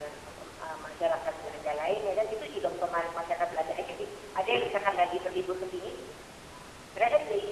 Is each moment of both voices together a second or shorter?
Yes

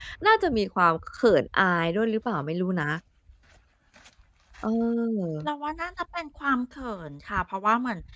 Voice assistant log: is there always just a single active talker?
Yes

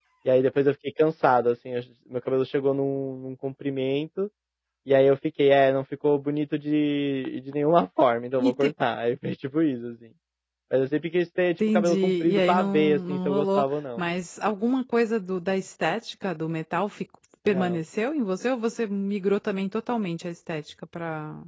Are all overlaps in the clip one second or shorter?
No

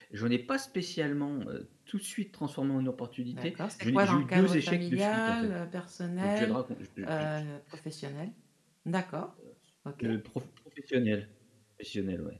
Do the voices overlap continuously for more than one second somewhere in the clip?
Yes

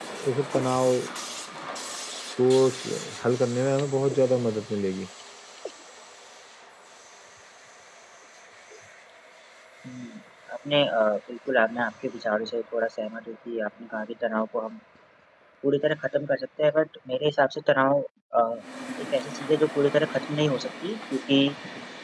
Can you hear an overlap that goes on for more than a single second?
No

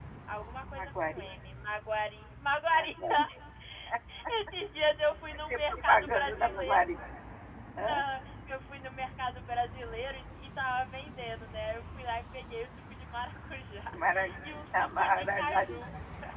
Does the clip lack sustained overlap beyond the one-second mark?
No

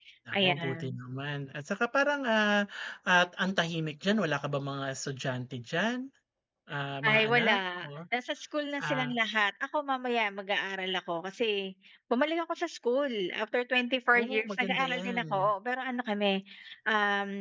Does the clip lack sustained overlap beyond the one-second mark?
No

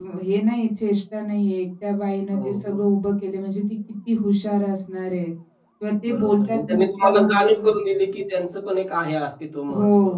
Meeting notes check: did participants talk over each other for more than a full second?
Yes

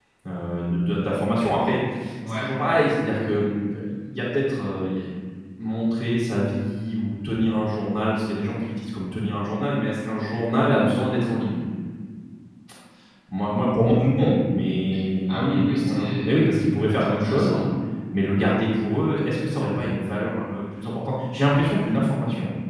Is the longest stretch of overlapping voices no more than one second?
No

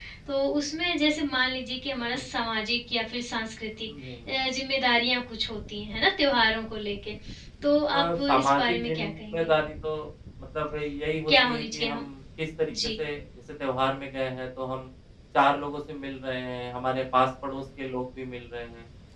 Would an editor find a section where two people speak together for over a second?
Yes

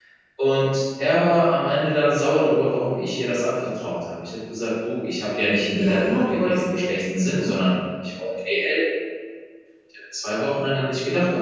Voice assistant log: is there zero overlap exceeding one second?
No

